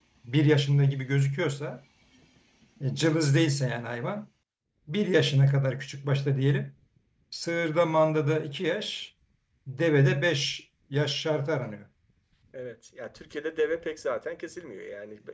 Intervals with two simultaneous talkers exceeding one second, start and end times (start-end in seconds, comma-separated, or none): none